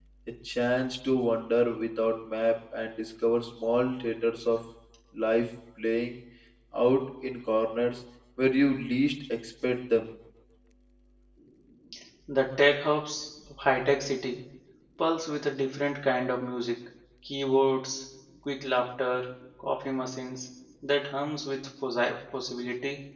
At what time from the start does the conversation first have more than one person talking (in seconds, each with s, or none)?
none